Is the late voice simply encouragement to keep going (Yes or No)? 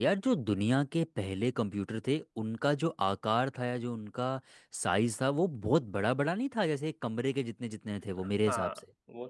No